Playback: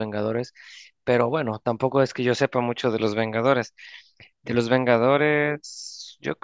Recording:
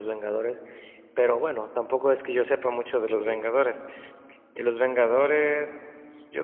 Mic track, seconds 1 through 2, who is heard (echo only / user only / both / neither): echo only